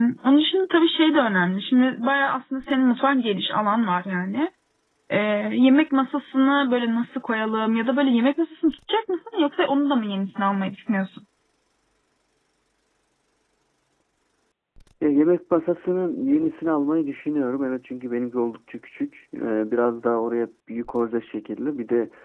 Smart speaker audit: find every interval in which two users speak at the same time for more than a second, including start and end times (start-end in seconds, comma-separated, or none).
none